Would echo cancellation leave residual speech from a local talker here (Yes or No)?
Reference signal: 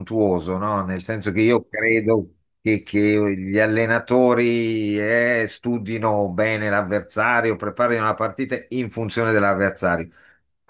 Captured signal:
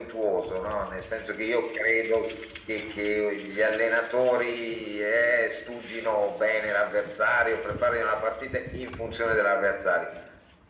No